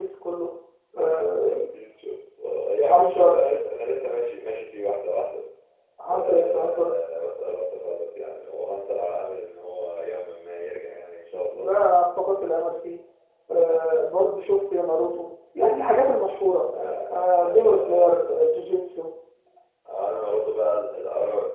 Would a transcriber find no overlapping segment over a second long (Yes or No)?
No